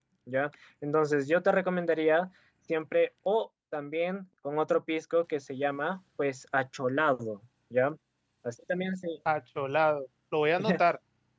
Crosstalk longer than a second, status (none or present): none